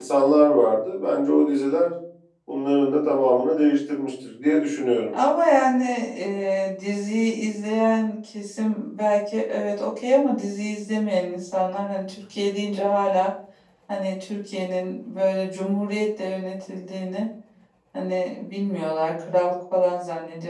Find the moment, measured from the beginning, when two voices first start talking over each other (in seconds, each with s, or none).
none